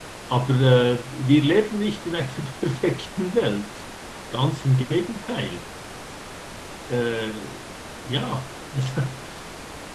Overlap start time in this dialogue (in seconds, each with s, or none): none